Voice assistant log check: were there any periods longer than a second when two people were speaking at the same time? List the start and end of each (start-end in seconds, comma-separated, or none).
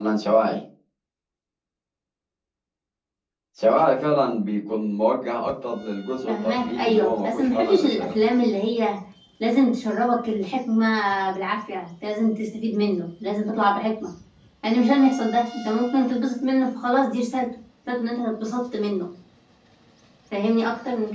6.3-8.2